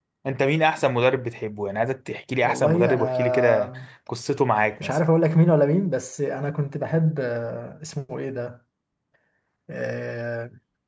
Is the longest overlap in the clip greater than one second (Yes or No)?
Yes